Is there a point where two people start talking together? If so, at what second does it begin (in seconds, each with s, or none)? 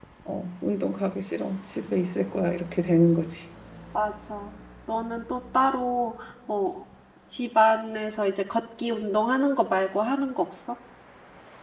none